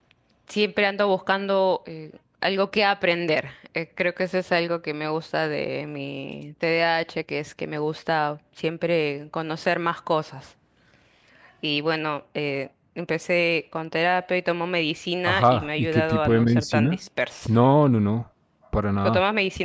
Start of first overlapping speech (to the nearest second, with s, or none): 15 s